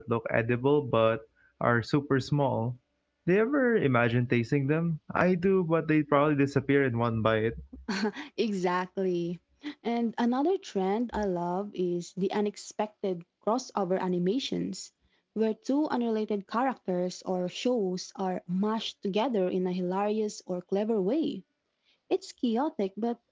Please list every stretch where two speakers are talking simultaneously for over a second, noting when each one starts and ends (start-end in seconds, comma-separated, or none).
none